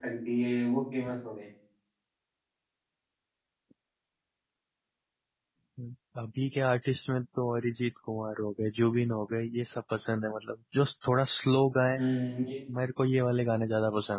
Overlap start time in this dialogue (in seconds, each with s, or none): none